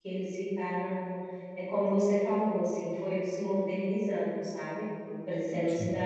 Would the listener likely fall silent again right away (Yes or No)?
Yes